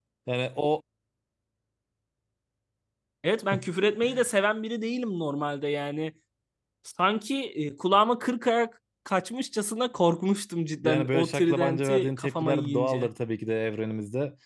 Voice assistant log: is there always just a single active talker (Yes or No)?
No